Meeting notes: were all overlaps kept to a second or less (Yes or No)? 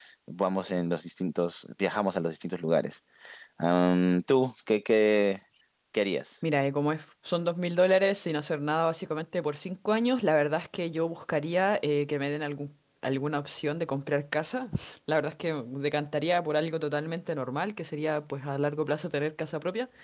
Yes